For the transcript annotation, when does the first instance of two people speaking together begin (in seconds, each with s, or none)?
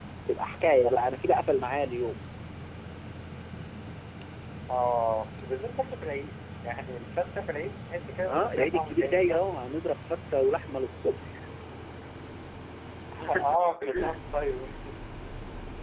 8.3 s